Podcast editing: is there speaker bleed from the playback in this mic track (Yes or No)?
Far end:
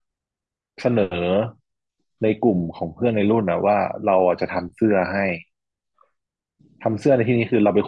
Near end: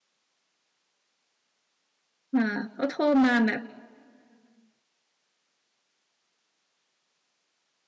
No